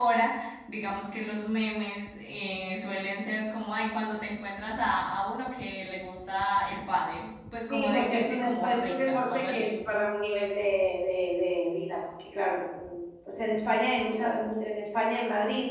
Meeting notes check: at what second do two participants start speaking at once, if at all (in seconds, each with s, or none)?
7.7 s